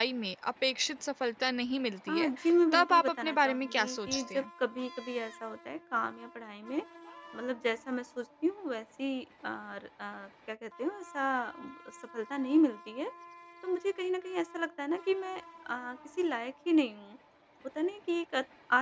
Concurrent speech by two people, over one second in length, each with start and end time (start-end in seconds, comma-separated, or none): 2.7-4.4